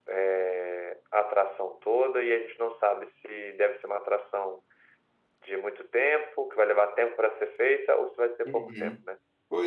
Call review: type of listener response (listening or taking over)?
taking over